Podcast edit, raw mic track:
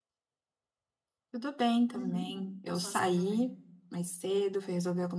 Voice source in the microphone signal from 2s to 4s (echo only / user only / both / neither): both